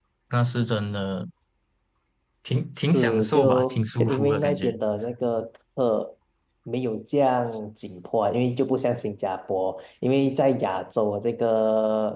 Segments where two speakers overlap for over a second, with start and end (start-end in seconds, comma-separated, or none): 2.9-4.7